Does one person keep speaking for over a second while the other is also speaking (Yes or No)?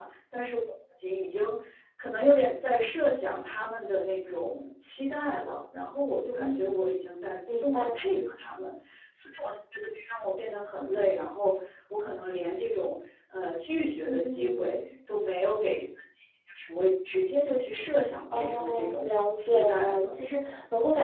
Yes